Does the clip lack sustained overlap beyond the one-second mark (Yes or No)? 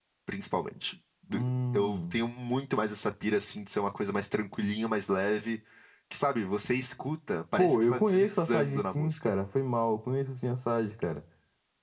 No